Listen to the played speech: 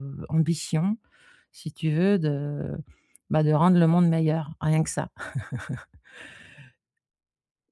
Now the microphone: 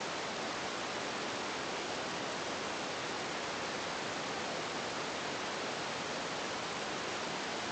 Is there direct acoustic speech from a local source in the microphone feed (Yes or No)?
No